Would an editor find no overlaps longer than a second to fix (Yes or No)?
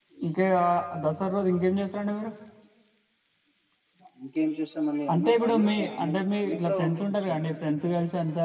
No